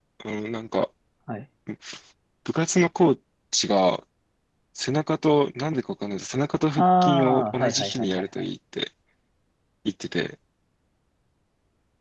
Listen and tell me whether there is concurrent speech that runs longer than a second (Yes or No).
Yes